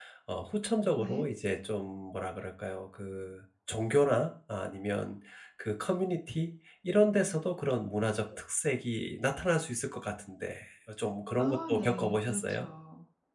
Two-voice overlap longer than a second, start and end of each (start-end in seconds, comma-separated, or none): 11.4-12.7